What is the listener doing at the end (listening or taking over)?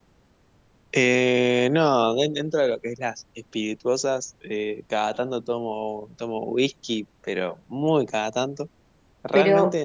taking over